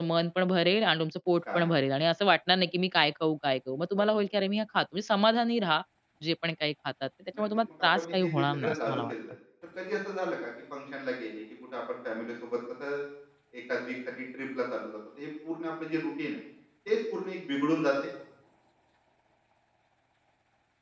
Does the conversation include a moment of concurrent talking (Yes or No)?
Yes